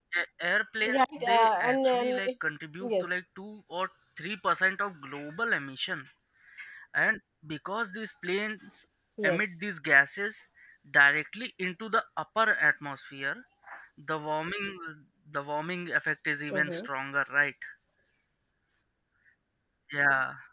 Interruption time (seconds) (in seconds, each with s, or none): 0.9 s